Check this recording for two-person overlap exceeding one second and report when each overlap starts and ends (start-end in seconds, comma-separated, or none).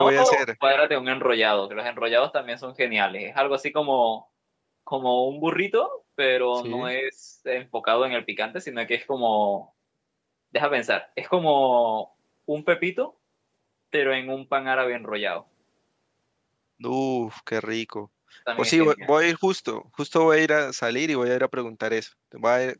none